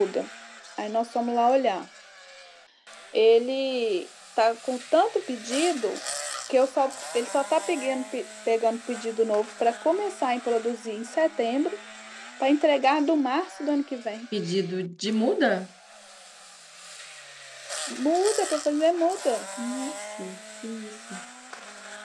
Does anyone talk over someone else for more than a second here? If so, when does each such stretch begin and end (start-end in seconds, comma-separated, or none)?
none